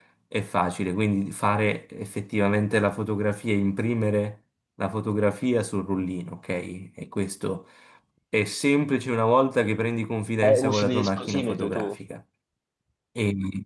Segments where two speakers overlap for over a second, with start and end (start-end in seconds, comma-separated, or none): 10.4-11.9